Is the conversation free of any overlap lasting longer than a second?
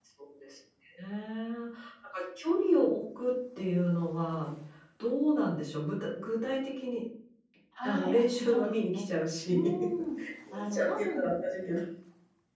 No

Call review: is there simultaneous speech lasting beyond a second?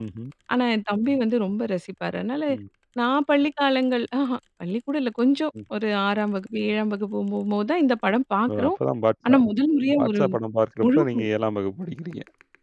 No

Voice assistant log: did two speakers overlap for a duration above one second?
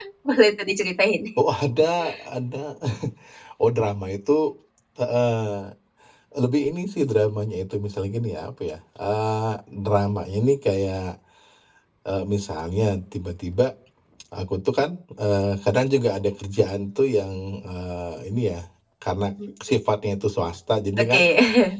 No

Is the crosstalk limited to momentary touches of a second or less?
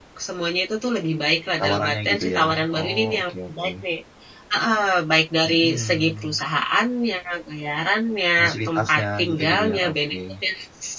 No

